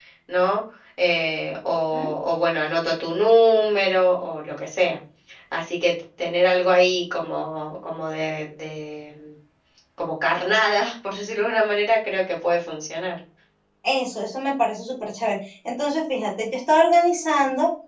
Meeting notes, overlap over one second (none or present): none